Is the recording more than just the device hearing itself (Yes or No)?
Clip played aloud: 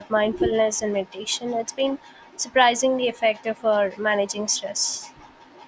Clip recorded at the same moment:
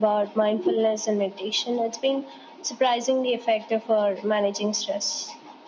No